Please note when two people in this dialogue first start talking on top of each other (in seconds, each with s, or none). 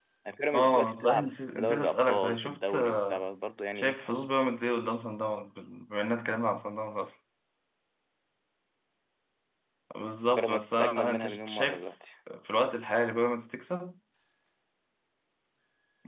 0.5 s